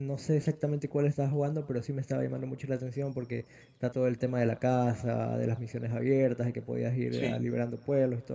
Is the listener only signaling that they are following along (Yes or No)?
Yes